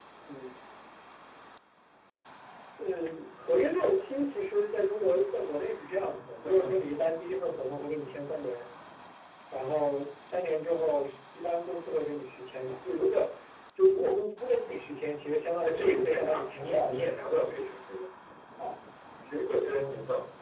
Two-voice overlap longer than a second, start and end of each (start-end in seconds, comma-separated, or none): 15.6-16.9